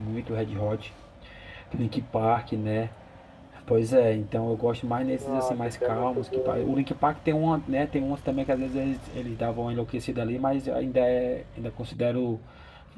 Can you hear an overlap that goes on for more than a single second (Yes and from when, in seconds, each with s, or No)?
Yes, from 5.2 s